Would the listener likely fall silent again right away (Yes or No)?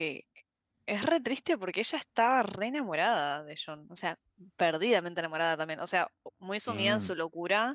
Yes